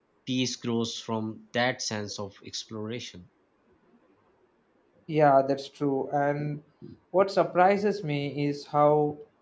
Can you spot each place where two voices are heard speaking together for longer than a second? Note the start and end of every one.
none

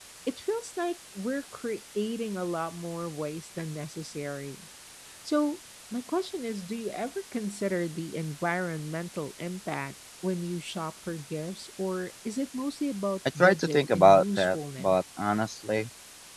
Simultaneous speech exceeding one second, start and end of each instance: 13.4-15.0

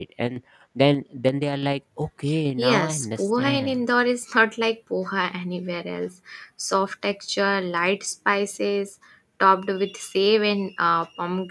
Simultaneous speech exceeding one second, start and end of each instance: 2.6-3.8

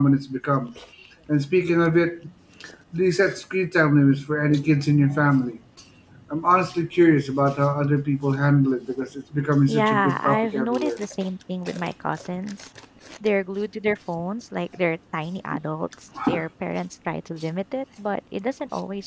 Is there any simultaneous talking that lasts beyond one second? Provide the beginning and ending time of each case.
9.7-10.9

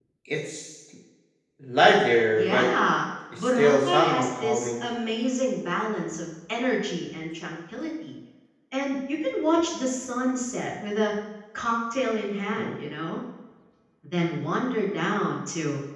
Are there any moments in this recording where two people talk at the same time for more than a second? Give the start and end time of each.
3.4-4.8

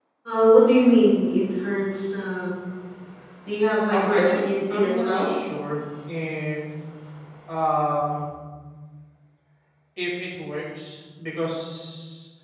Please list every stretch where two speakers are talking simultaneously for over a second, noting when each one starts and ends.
3.9-5.3

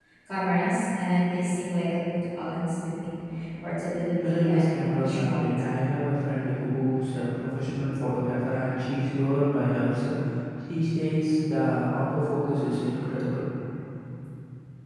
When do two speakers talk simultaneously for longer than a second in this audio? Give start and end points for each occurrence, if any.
4.3-5.8

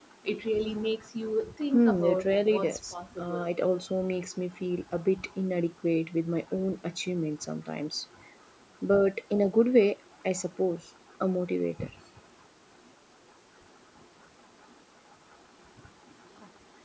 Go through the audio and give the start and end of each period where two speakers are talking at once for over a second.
1.7-3.4

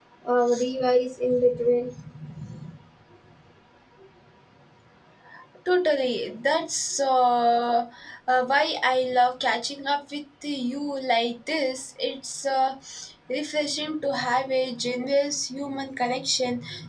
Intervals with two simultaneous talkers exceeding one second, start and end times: none

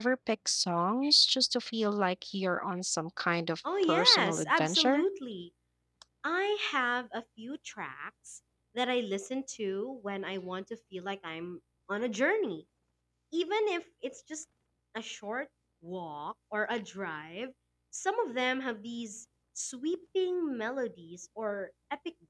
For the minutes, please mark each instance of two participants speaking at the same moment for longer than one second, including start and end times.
3.8-5.0

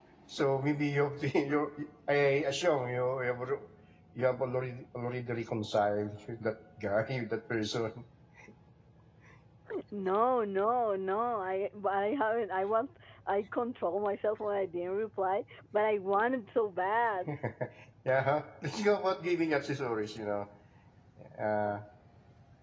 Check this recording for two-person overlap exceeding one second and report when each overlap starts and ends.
none

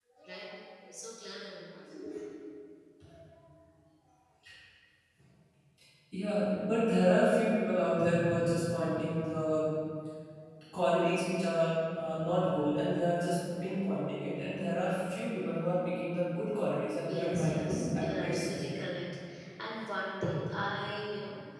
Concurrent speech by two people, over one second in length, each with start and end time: 17.1-18.9

